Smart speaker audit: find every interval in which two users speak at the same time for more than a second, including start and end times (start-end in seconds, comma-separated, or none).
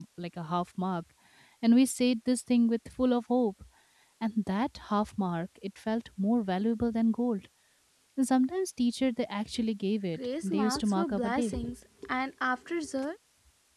10.2-11.5